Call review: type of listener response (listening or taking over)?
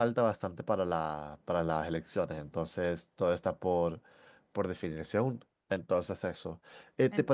listening